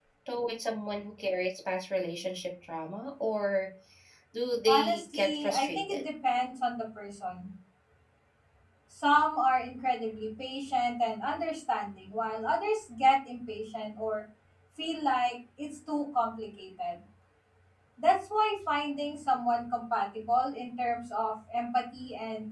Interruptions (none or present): present